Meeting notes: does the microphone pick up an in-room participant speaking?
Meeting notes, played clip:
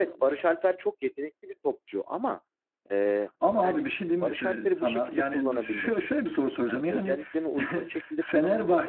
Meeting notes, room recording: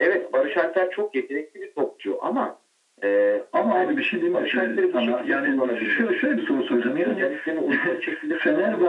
No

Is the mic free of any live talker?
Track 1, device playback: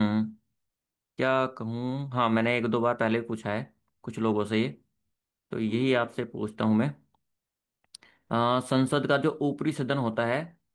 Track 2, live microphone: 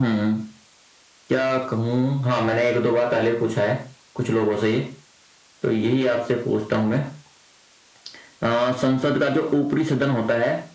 Yes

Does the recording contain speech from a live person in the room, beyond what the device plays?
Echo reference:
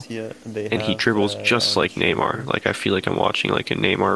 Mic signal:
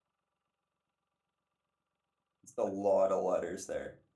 Yes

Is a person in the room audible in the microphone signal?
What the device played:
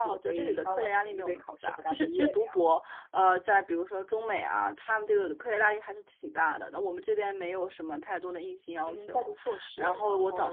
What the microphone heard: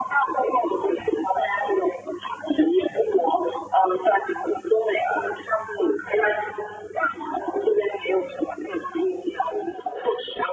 No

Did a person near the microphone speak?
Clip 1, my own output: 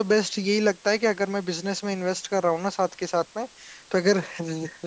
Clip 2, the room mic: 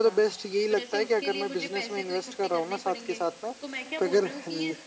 Yes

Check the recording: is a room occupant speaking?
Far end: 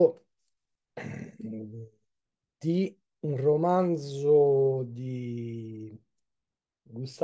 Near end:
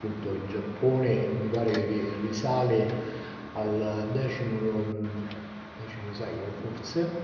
Yes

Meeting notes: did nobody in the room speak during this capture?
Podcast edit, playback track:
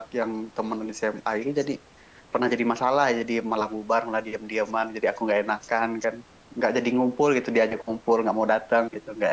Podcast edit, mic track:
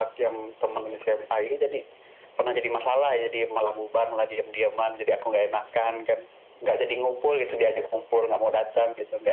Yes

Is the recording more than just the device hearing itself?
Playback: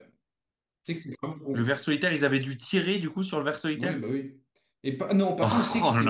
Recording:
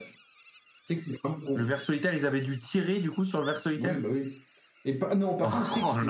No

